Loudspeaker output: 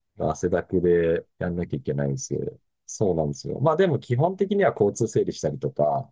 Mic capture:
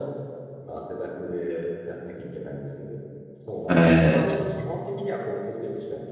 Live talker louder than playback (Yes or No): Yes